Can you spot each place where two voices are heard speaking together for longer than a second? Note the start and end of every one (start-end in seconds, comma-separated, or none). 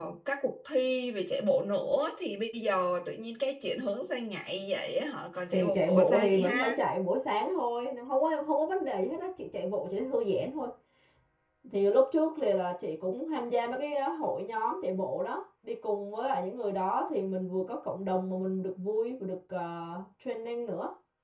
5.5-6.8